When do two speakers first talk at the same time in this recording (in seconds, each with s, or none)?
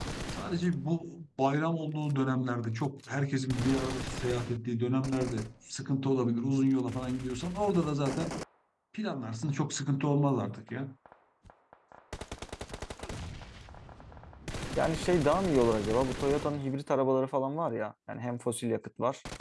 none